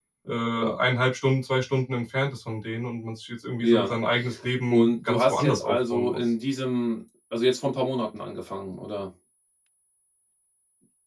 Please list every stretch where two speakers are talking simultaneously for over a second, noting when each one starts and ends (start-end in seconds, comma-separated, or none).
4.7-6.2